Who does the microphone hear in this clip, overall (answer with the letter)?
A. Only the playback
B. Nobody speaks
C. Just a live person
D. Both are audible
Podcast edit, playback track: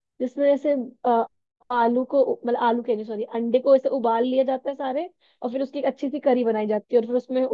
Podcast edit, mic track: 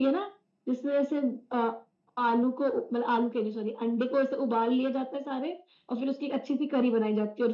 A